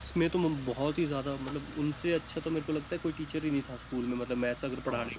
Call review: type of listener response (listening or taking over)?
taking over